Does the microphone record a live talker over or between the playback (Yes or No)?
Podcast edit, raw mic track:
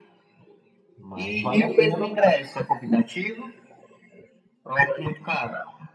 Yes